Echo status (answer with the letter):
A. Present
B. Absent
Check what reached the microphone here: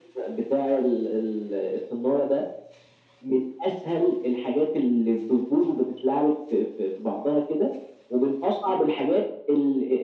A